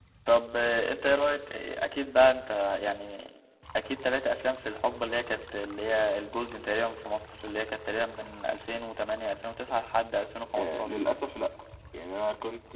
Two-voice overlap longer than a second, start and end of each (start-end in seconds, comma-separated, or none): none